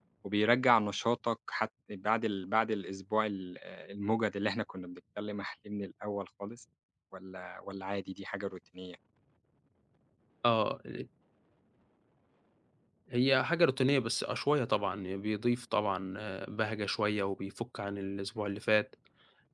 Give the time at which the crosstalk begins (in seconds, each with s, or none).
none